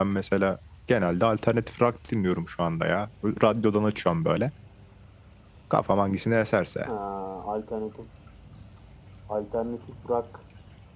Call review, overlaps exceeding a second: none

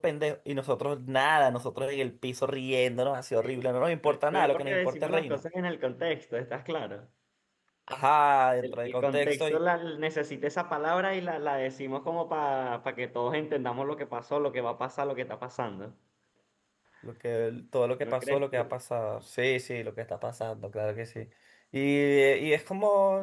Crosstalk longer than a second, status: present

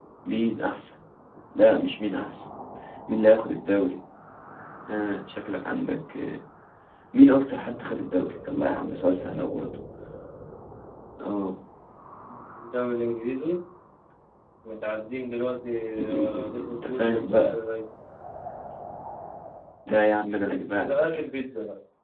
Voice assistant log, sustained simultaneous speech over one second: present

